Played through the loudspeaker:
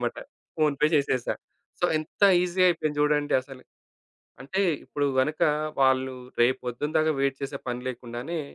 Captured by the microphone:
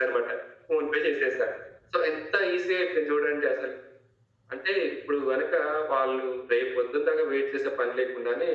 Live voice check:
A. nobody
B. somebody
A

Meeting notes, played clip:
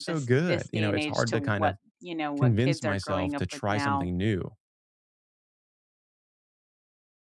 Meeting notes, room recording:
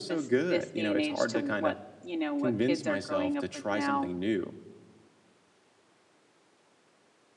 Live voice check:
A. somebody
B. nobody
B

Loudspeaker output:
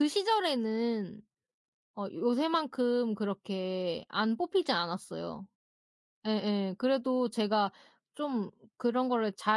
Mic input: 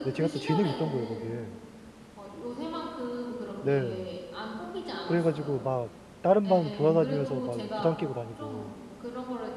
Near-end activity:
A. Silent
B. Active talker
B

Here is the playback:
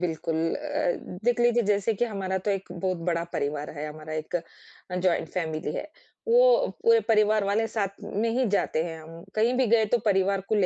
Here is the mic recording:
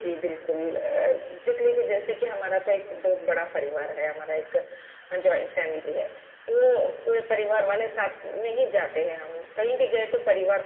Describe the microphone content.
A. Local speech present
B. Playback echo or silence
B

